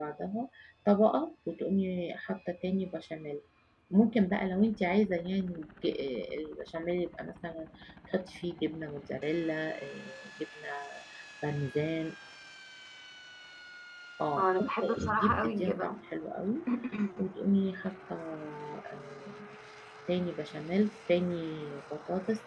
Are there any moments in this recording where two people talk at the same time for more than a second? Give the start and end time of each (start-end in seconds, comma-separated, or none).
14.4-16.0